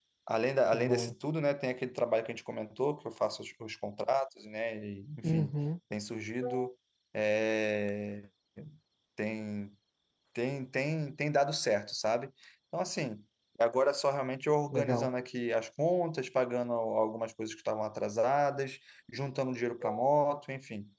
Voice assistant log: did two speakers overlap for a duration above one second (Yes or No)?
No